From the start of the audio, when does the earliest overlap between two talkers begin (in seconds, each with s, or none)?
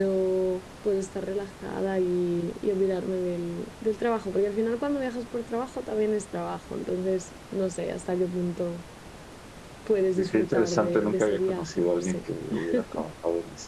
10.2 s